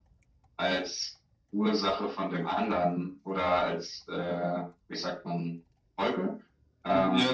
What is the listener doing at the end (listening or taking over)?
taking over